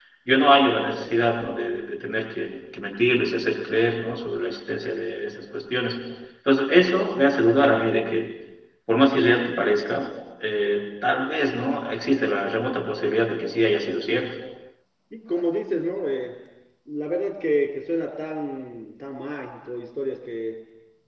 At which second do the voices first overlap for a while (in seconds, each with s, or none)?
none